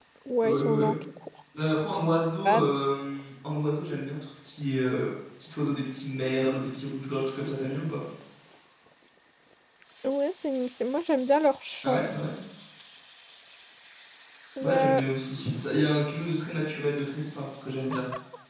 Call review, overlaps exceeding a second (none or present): none